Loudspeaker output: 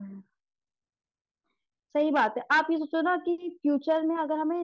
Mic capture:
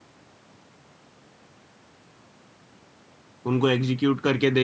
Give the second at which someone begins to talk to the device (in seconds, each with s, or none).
3.5 s